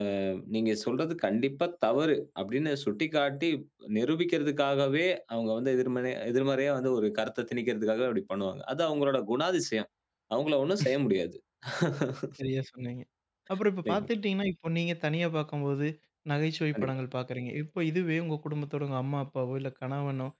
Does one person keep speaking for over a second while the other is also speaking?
No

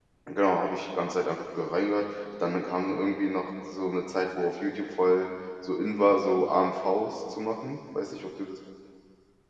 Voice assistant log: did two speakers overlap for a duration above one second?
No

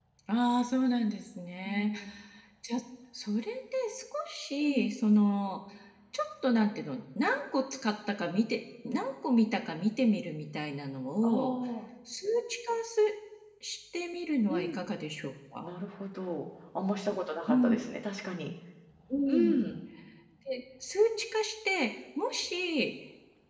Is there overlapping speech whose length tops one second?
No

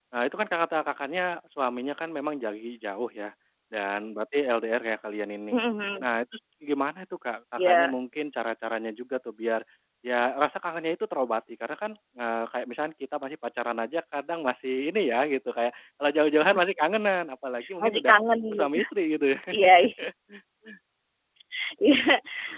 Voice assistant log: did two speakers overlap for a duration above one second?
No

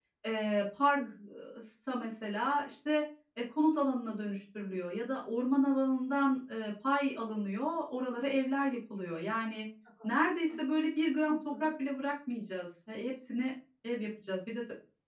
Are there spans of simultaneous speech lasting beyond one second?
No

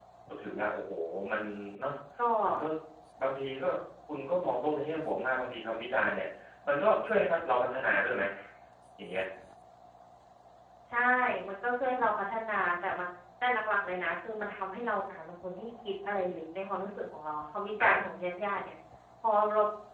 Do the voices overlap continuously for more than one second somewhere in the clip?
No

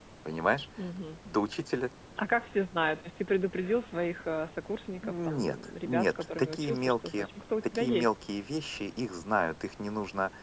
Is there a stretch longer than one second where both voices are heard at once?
Yes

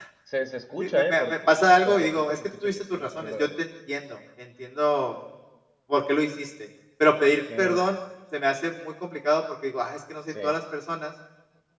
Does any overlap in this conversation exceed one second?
Yes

